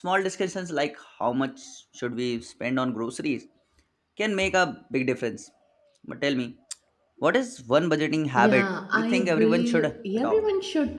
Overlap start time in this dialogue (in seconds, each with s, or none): 8.4 s